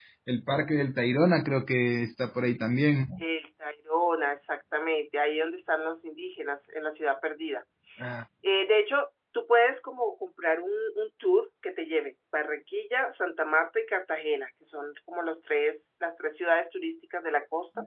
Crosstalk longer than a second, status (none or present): none